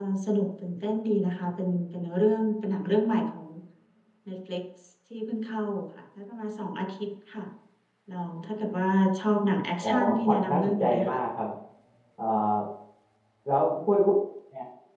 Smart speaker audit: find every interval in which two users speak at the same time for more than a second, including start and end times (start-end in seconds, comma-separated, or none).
9.8-11.2